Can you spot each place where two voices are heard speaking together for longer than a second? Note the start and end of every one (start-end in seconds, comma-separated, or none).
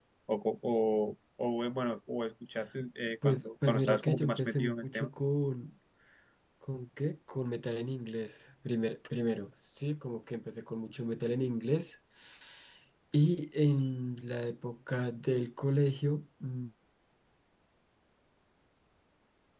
3.2-5.1